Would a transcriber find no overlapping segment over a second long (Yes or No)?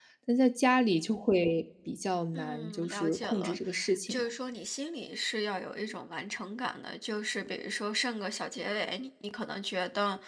No